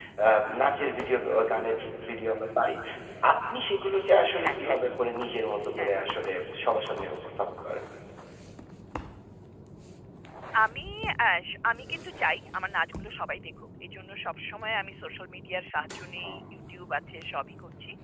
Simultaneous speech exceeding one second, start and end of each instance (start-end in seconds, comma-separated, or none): none